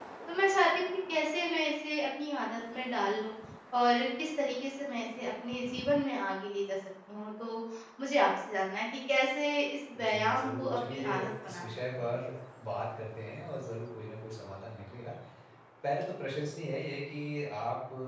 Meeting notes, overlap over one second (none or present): present